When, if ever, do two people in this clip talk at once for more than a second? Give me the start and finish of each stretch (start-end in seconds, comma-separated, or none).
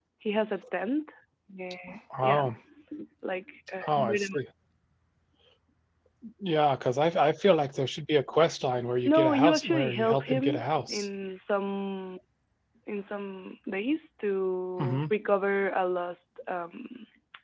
9.1-11.1